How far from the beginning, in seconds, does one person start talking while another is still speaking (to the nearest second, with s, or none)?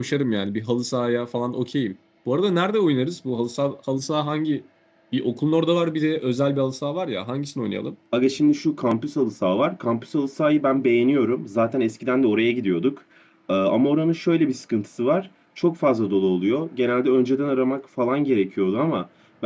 none